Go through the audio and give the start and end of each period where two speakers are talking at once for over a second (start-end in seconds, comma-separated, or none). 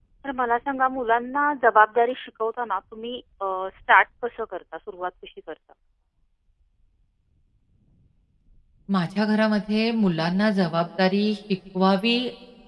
none